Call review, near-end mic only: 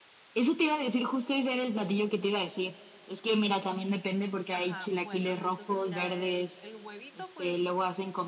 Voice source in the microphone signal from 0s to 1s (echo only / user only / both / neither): echo only